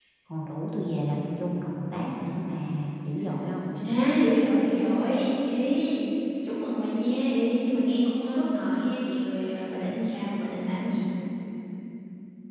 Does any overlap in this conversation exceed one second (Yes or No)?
No